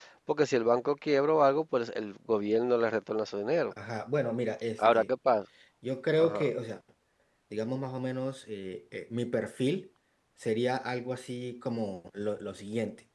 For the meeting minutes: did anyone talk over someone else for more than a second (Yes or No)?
No